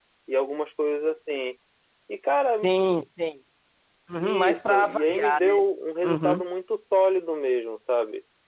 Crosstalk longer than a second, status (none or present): present